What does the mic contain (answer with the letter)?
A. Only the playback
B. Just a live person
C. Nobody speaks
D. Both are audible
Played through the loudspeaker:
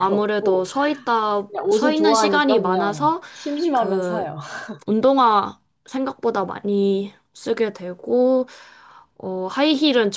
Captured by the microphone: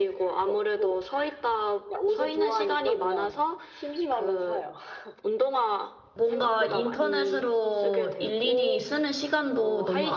D